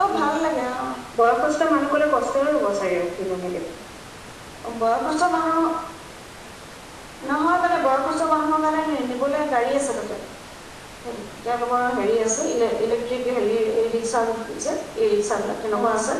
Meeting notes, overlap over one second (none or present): none